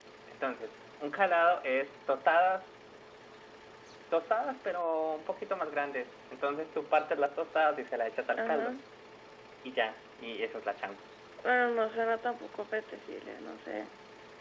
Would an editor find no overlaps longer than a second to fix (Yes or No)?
Yes